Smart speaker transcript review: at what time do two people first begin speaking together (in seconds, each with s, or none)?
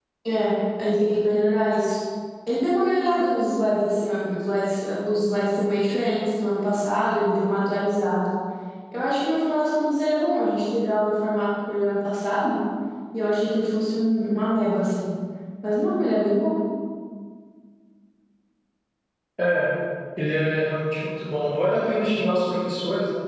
none